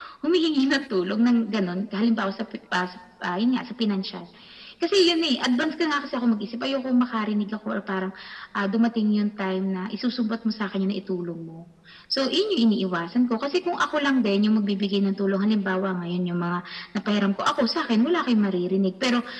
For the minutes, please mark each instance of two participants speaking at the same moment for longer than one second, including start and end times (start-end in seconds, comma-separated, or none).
none